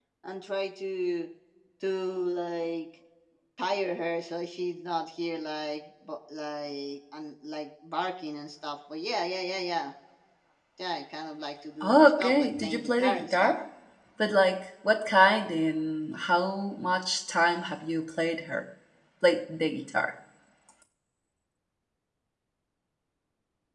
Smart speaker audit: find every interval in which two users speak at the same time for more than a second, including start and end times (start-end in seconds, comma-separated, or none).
11.8-13.5